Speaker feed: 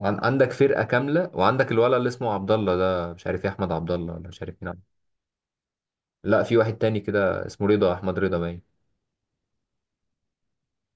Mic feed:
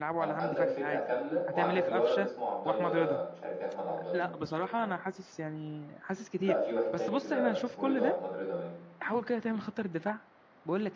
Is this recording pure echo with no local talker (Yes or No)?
No